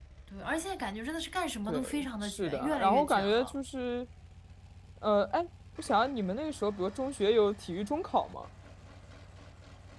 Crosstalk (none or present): present